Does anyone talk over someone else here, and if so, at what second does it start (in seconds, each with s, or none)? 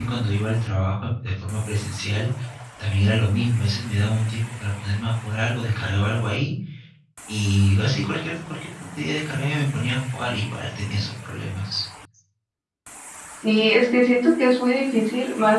none